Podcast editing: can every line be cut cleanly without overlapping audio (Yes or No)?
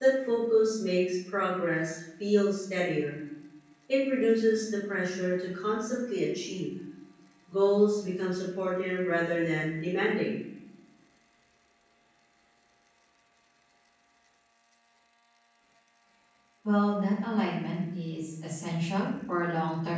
Yes